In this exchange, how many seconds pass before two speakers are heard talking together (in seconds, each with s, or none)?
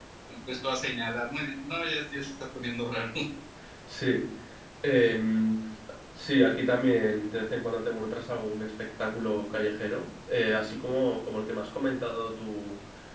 none